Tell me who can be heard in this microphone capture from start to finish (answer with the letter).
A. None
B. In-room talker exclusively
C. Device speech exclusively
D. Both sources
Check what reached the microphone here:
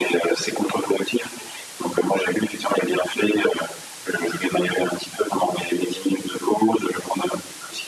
C